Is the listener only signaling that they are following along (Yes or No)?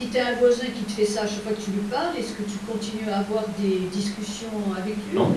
Yes